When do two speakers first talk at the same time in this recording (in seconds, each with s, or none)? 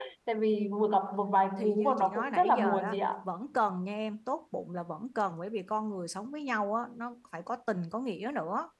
1.6 s